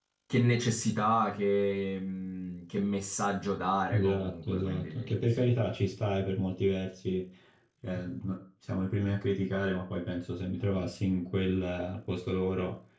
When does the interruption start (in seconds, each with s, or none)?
3.9 s